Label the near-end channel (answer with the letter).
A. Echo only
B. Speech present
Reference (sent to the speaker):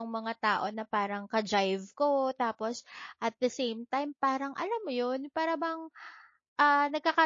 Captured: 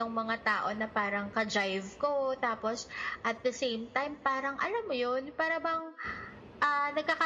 A